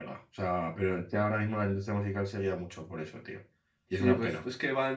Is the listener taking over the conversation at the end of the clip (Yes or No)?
Yes